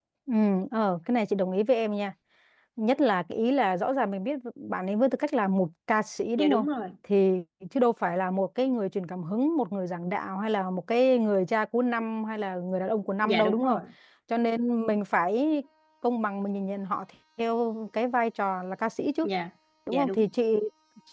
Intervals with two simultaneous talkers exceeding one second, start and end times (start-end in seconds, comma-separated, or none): none